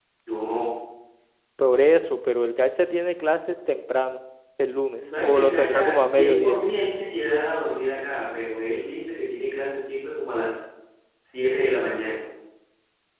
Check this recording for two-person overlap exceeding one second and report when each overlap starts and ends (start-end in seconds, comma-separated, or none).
5.0-6.6